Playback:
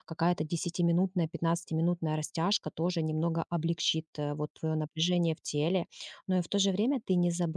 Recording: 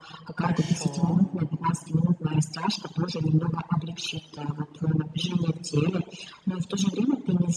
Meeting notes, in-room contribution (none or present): present